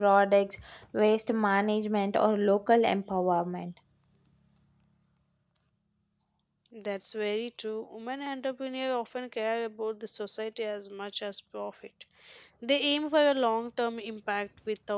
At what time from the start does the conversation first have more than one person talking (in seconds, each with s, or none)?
none